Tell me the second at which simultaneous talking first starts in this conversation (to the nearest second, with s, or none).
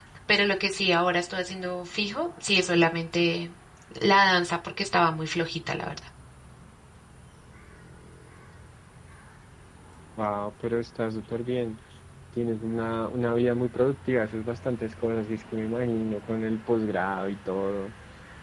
none